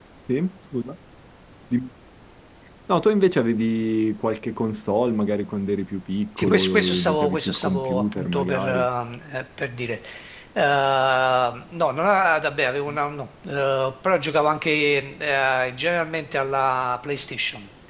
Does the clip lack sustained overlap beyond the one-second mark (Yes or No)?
No